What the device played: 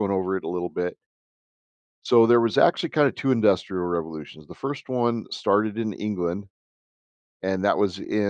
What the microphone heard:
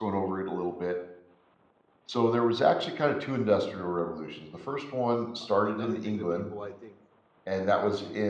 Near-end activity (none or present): present